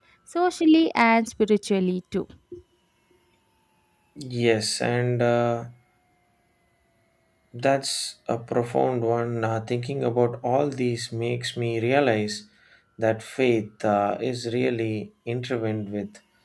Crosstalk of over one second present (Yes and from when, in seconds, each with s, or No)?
No